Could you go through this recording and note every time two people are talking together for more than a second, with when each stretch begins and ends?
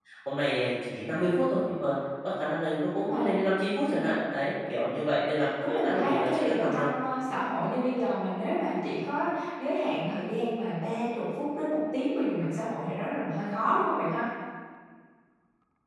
5.7-6.9

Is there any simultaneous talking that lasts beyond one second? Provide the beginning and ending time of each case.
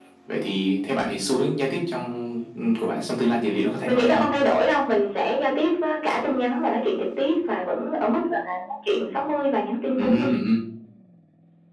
none

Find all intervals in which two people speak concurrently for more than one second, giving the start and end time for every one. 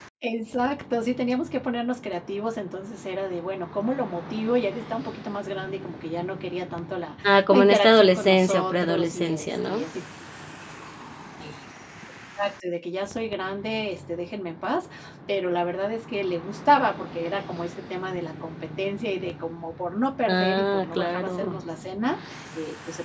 7.2-9.8, 20.3-21.6

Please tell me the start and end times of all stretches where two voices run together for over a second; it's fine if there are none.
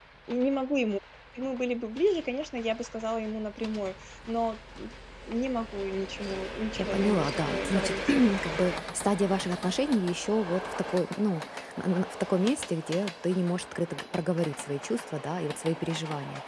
6.8-8.0

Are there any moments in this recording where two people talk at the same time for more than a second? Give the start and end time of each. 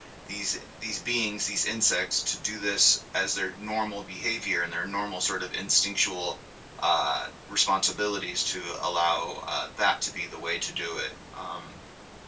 none

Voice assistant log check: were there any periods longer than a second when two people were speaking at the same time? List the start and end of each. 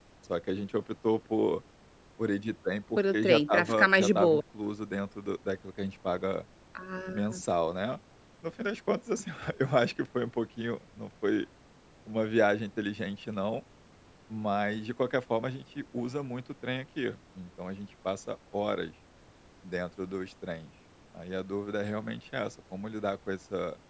3.0-4.4

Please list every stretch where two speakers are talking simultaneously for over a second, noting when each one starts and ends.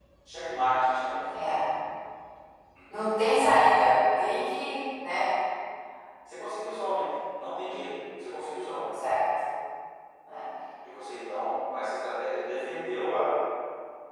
none

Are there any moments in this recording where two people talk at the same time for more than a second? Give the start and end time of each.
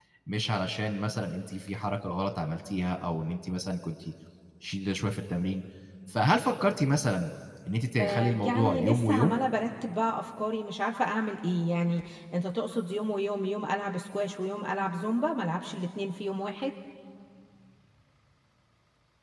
8.0-9.4

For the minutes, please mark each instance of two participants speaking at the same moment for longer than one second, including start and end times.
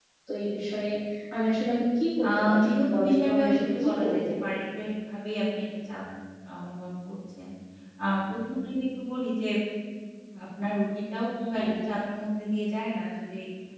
2.2-4.2

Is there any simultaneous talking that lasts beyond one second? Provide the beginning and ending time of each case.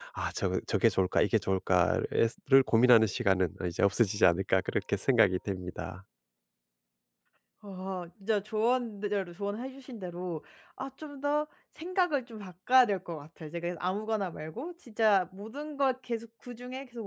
none

